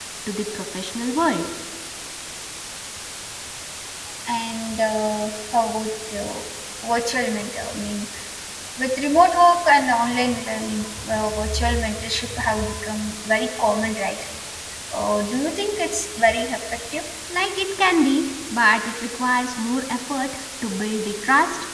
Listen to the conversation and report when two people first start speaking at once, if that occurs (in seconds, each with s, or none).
none